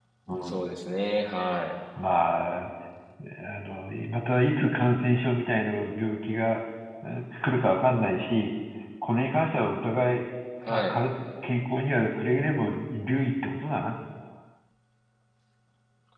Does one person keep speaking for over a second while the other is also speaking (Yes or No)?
No